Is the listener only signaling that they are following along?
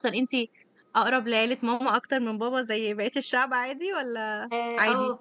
No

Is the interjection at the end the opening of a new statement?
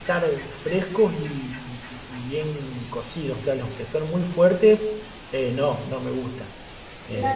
Yes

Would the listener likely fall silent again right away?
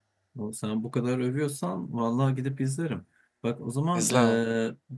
Yes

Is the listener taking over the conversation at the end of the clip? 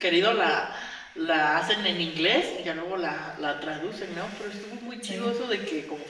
No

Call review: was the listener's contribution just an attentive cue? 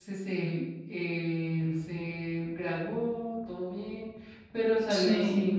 Yes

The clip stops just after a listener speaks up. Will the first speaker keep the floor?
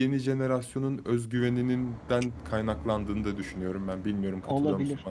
No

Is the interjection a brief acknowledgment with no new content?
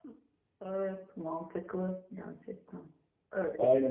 No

